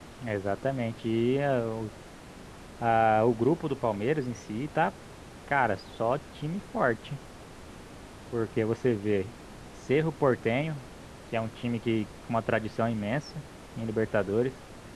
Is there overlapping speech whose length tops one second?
No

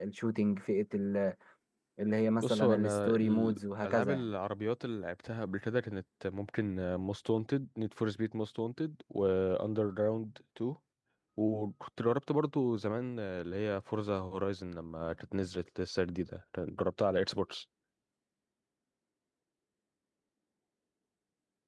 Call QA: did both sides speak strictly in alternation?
No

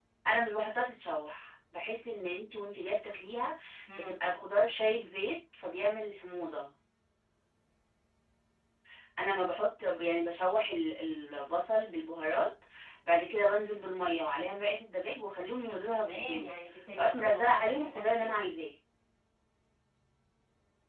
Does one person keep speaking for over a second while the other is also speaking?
Yes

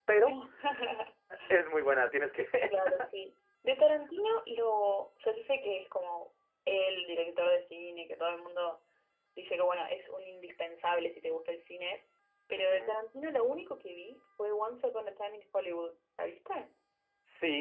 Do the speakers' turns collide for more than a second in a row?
No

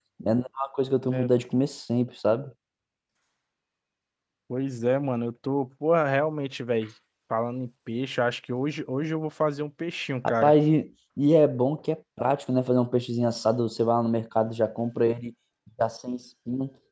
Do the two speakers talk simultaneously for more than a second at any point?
No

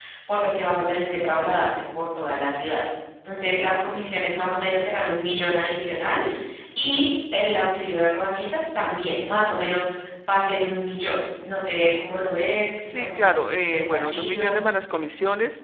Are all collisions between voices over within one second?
No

